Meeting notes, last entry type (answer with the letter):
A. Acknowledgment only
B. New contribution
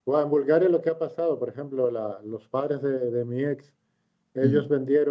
A